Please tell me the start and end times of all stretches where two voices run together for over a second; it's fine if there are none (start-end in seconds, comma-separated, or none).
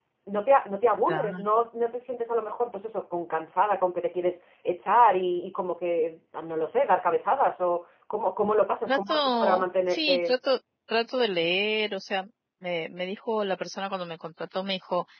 8.9-10.3